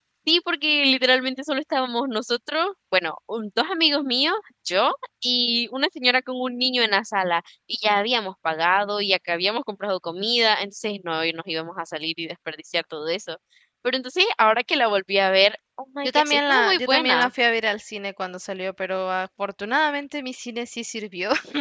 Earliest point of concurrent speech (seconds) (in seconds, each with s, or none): 16.0 s